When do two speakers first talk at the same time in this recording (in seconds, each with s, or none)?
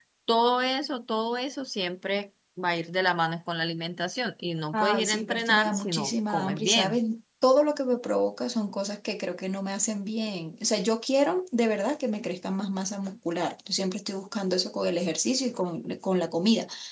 4.7 s